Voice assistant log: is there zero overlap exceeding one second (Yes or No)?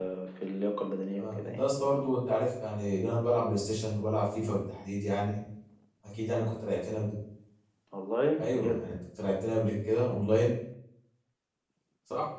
Yes